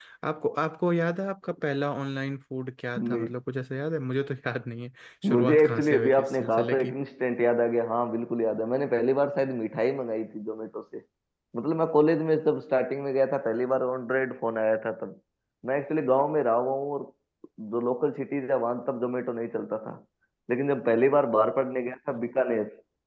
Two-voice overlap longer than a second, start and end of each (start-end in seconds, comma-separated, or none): 5.3-7.0